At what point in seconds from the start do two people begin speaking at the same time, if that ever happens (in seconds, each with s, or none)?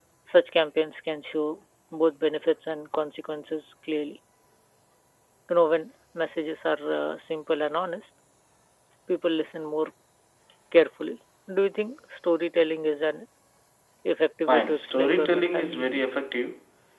14.5 s